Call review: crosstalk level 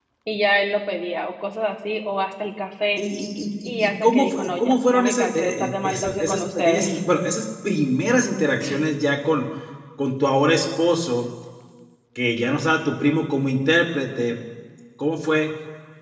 present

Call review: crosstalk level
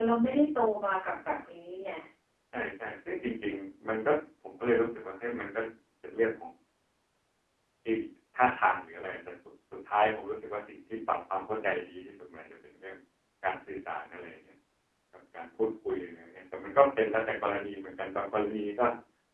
none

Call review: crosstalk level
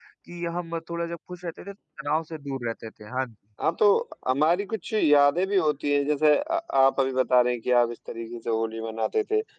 none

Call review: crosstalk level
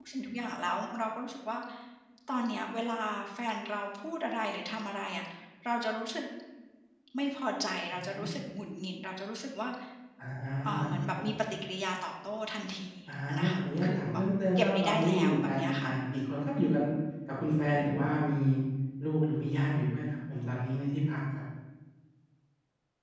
present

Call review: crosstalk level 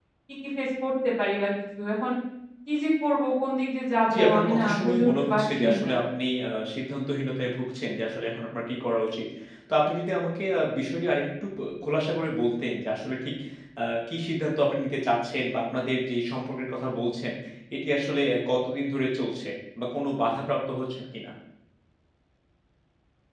present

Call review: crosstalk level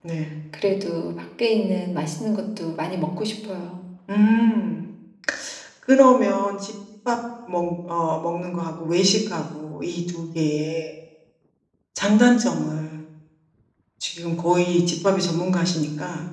none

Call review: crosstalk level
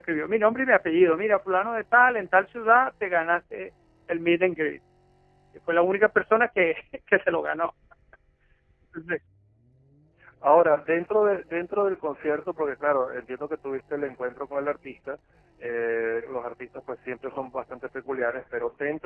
none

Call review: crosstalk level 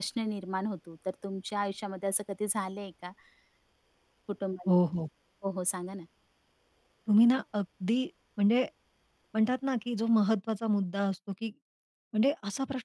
none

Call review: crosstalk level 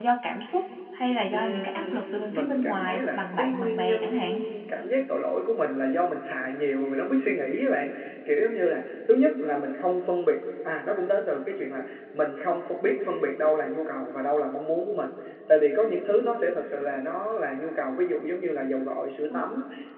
present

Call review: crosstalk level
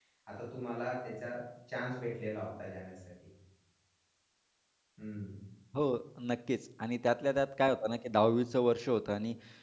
none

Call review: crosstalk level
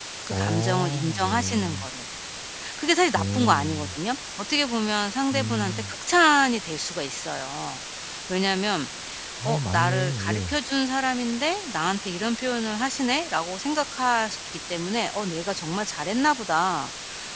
present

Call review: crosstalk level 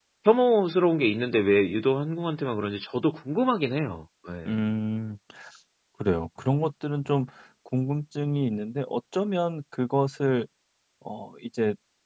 none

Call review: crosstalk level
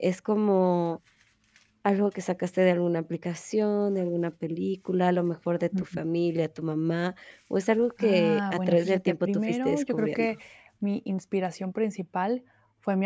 present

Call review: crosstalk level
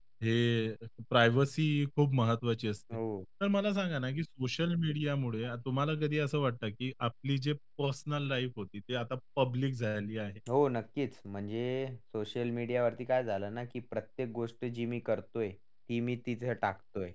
none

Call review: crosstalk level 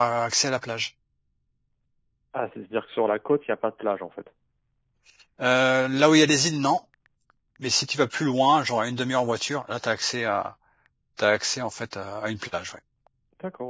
none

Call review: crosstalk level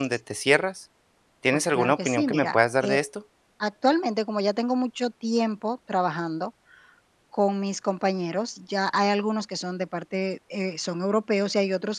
present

